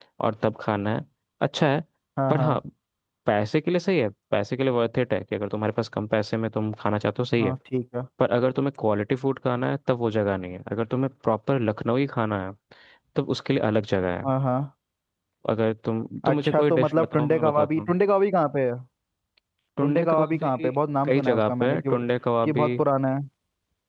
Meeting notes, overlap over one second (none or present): present